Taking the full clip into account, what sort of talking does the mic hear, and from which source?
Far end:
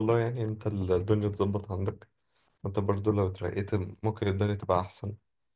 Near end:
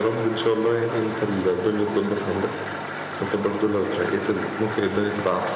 echo only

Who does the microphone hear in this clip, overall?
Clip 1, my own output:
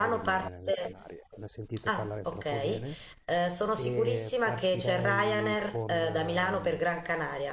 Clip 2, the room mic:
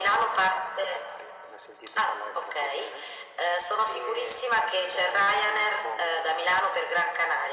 echo only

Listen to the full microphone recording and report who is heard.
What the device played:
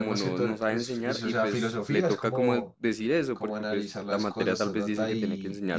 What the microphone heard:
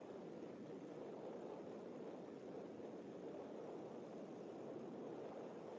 neither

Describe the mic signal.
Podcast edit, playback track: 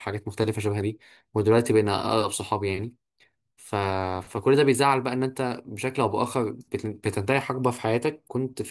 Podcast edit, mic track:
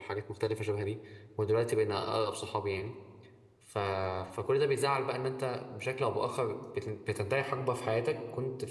echo only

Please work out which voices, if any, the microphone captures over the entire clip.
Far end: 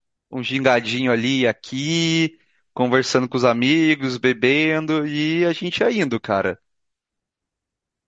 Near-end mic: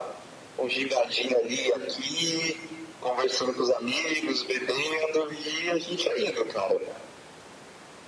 echo only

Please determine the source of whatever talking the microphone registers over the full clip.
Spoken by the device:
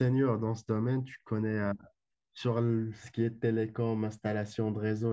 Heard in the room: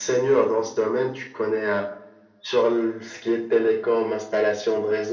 echo only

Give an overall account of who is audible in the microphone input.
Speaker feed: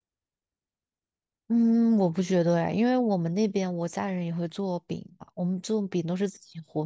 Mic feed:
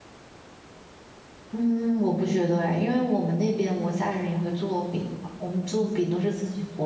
echo only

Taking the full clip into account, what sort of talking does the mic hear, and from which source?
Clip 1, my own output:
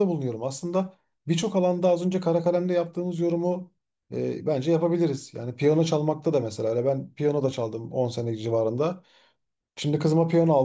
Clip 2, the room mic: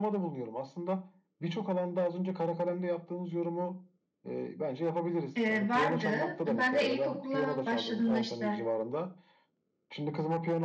both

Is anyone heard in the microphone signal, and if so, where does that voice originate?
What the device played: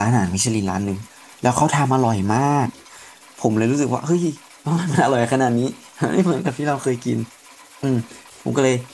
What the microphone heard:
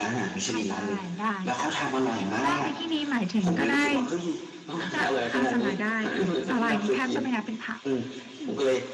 both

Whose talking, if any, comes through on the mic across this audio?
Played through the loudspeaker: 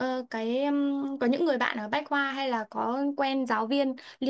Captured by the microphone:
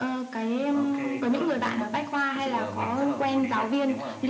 both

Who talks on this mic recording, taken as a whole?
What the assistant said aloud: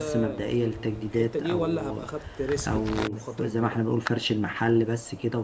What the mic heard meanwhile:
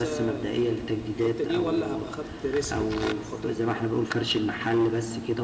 echo only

